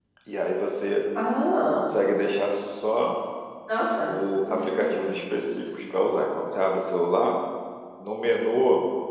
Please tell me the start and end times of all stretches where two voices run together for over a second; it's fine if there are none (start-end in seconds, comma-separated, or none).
none